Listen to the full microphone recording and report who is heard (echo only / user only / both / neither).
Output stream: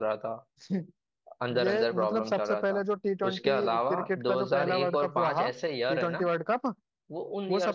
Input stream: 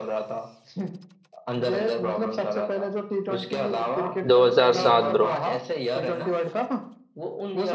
both